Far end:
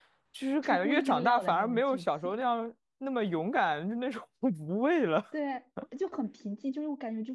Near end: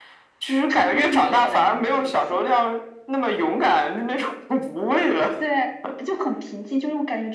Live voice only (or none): none